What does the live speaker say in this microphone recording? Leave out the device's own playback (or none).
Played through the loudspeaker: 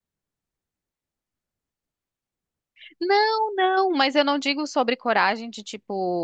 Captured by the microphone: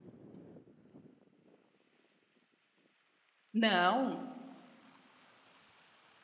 Não,